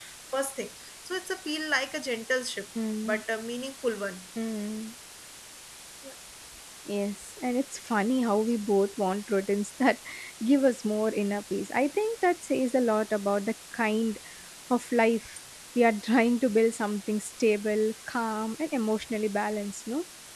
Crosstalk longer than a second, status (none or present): none